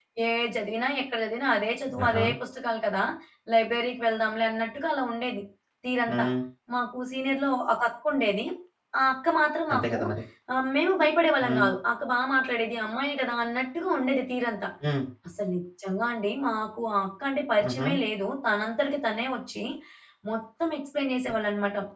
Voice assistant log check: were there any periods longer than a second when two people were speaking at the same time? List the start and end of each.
none

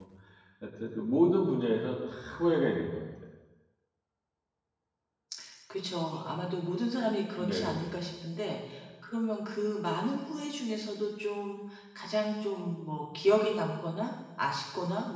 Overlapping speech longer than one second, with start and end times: none

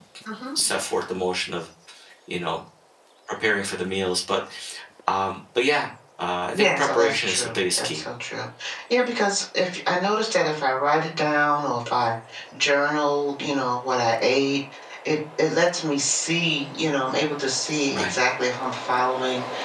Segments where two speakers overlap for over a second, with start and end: 6.5-8.0

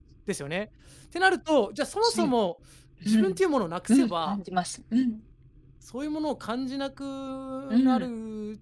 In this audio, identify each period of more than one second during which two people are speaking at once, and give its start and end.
none

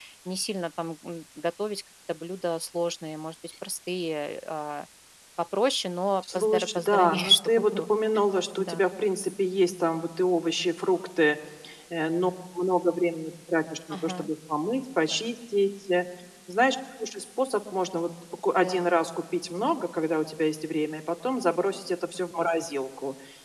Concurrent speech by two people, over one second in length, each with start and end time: 6.4-7.9

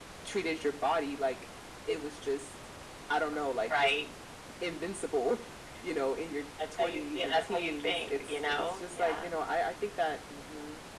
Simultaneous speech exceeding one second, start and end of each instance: 6.8-9.3

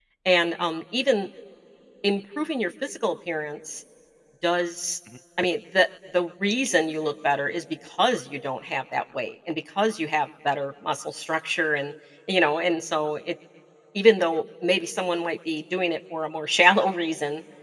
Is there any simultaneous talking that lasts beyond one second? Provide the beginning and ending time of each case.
none

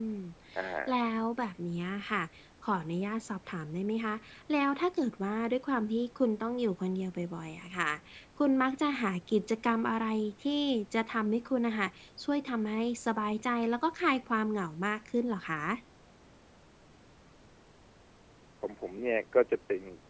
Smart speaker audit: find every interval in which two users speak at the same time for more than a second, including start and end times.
none

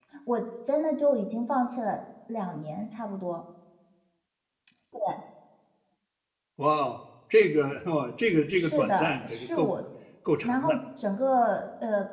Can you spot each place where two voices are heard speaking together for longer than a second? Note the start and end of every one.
8.5-9.7

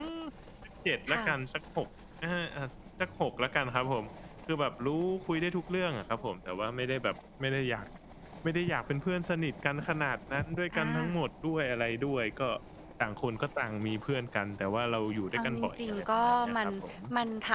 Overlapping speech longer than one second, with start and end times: 15.3-16.7

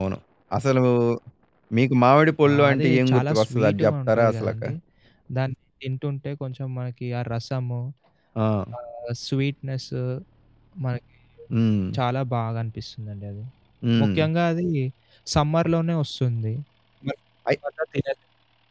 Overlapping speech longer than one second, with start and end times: 2.5-4.5

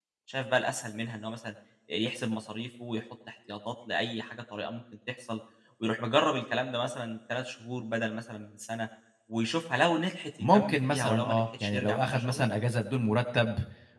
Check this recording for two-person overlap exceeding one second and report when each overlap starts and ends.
10.5-12.4

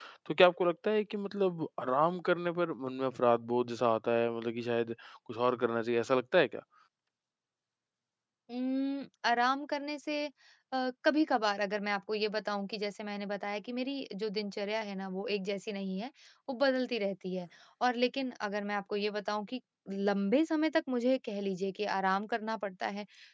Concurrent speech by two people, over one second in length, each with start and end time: none

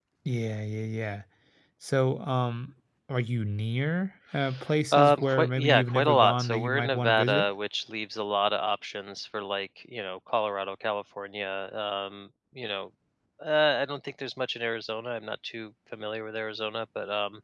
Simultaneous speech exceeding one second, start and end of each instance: 4.9-7.5

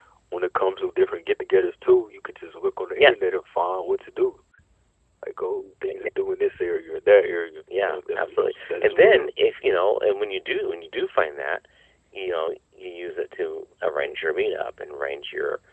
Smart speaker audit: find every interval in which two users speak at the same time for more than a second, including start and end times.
7.8-9.3

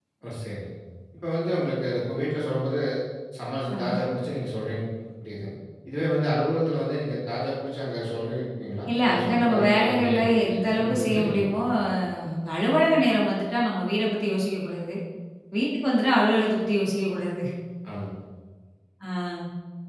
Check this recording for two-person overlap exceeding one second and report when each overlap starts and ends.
9.0-11.6

